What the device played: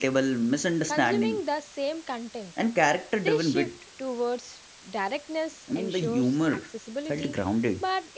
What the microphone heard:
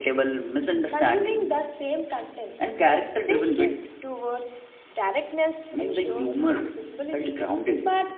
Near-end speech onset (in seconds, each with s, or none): none